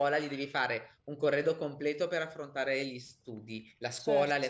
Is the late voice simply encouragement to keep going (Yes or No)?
Yes